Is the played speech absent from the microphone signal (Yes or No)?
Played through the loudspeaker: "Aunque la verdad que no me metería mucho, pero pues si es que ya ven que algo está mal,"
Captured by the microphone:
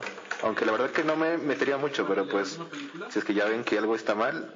No